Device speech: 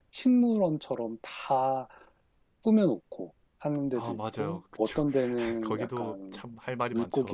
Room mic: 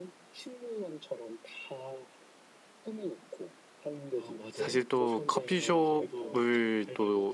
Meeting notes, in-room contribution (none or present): present